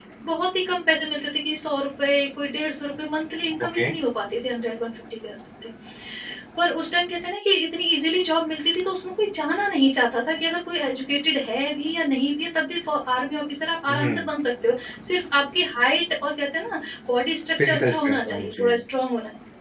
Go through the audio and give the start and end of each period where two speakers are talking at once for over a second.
17.6-18.8

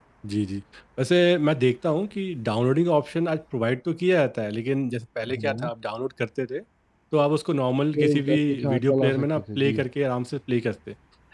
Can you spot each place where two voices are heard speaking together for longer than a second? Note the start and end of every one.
8.0-9.8

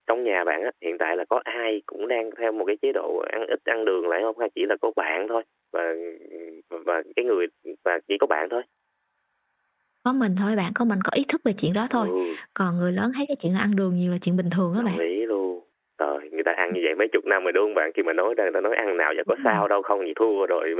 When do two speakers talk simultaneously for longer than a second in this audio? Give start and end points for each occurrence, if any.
none

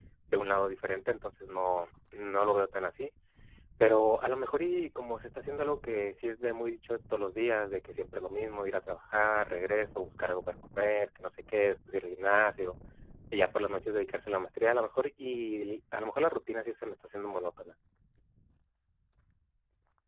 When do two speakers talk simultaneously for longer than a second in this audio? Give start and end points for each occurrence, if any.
none

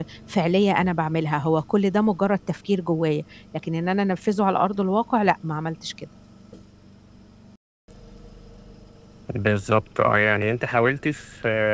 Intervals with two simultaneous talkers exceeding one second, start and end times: none

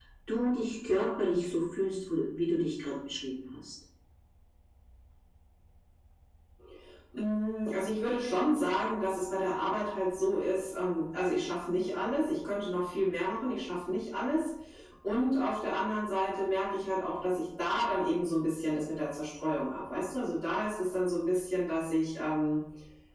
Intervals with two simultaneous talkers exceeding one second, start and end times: none

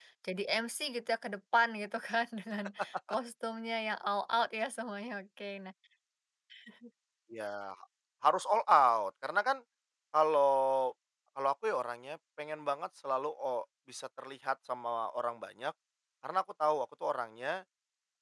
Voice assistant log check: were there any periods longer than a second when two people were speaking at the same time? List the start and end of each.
none

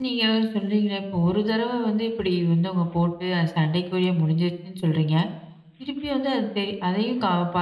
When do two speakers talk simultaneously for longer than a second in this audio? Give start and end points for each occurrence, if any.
none

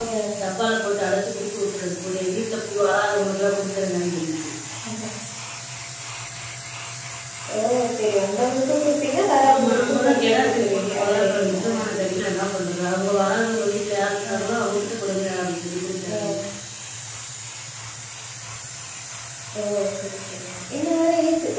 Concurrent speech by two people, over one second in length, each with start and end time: 9.5-11.6

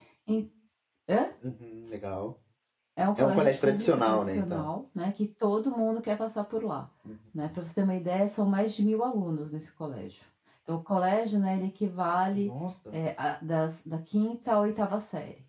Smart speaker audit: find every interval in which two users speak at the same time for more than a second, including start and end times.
3.2-4.7

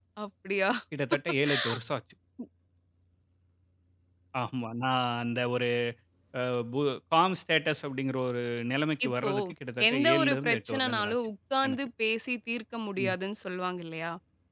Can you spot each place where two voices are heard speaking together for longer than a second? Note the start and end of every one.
9.9-11.2

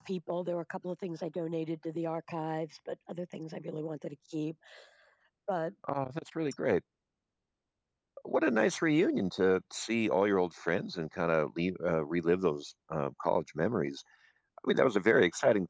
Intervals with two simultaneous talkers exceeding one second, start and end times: none

